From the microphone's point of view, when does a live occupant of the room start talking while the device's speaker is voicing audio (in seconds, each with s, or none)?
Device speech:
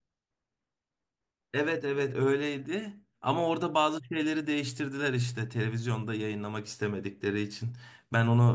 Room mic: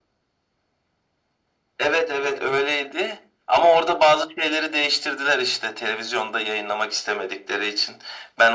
none